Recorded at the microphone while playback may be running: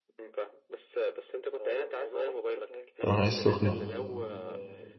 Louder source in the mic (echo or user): user